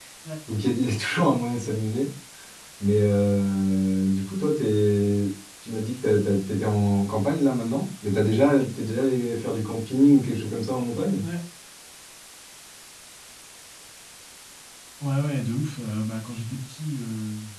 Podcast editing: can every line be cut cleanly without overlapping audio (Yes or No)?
Yes